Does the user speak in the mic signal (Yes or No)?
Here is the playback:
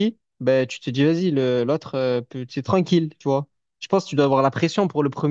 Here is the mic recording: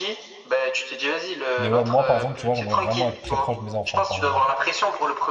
Yes